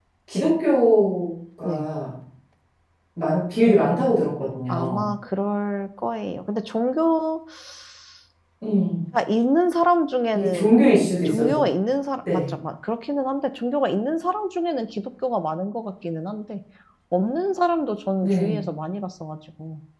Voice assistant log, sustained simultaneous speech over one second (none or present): none